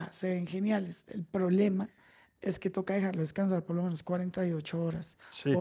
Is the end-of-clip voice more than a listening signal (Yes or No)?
Yes